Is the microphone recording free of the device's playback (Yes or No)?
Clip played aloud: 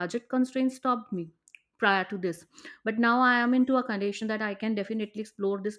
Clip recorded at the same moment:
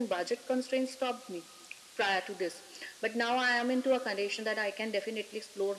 No